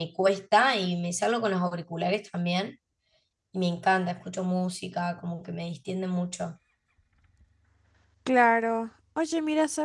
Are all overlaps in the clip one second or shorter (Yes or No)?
Yes